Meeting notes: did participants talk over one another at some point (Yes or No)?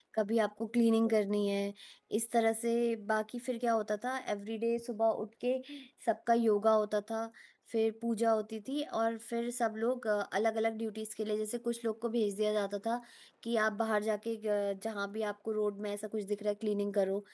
No